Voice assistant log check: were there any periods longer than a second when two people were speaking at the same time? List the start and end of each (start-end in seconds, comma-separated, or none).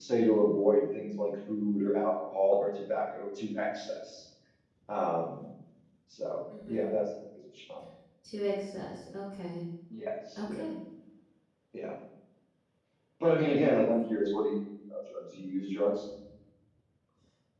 none